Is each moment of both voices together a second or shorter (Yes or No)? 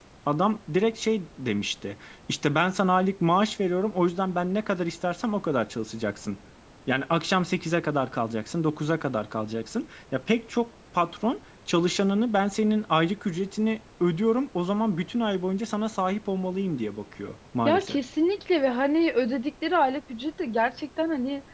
Yes